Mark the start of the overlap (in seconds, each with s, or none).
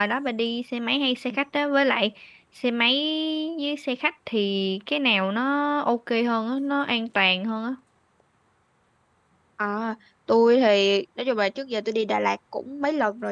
none